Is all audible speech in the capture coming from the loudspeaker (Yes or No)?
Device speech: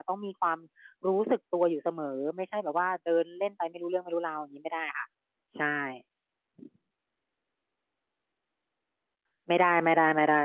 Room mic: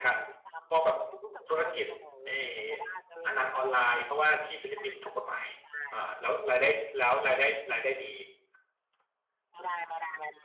No